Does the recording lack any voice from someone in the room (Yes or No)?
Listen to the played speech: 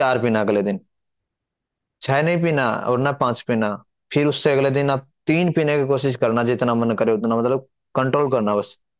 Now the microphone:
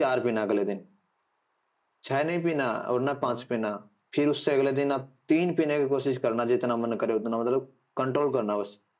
No